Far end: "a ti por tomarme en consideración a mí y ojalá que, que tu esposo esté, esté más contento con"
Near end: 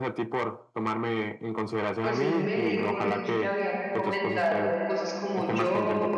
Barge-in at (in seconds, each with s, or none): 2.0 s